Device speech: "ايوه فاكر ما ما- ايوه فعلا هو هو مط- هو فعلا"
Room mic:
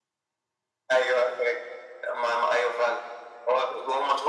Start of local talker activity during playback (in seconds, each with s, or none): none